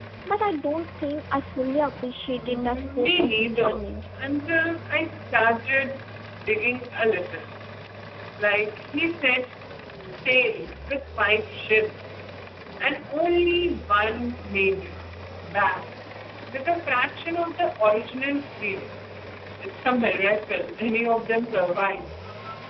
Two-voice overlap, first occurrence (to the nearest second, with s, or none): 2 s